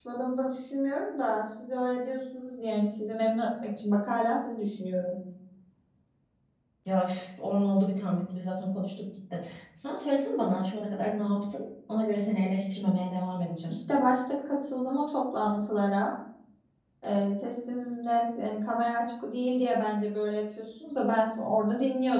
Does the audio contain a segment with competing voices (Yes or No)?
No